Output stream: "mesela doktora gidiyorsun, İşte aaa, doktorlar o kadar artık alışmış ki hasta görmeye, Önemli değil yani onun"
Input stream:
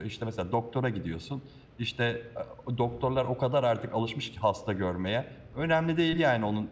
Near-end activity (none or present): none